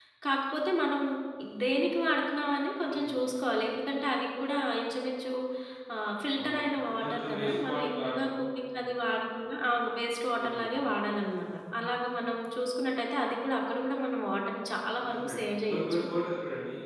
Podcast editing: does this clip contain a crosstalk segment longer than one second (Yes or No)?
Yes